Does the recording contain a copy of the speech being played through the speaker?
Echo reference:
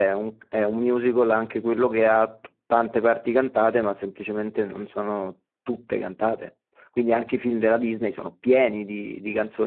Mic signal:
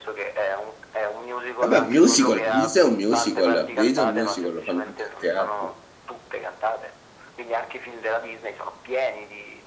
Yes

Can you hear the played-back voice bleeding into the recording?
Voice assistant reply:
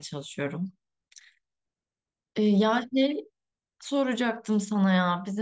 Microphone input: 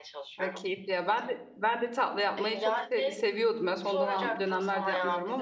Yes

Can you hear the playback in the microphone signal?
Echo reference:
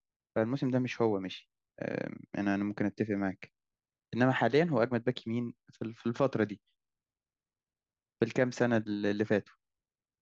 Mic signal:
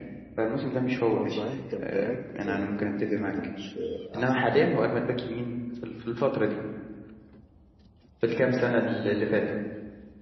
Yes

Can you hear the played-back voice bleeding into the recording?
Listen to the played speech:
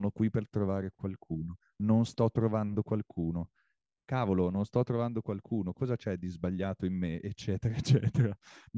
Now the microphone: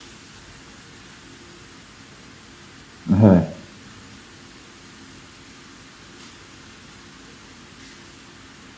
No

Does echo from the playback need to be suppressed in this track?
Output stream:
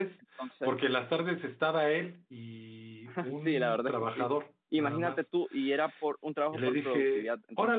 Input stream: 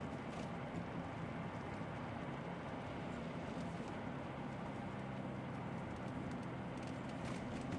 No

